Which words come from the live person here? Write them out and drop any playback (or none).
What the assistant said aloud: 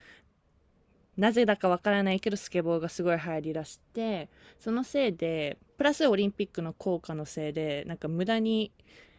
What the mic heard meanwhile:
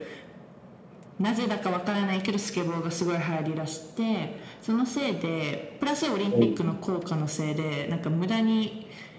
うん。